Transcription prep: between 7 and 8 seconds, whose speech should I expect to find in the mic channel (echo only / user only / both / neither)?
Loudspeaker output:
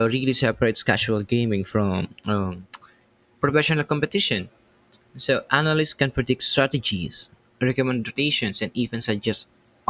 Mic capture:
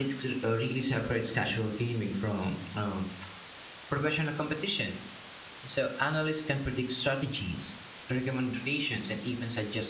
echo only